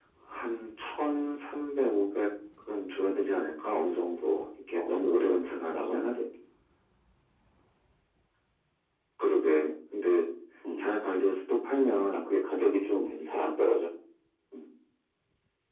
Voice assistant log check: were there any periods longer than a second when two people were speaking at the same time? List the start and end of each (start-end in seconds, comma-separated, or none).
4.7-6.2